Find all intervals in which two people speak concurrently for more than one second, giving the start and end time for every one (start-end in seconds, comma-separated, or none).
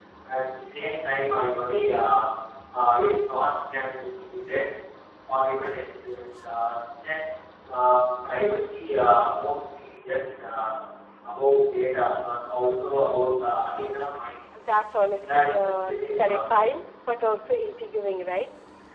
15.3-16.6